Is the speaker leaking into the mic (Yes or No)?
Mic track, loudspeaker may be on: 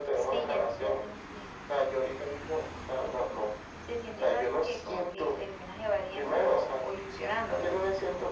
Yes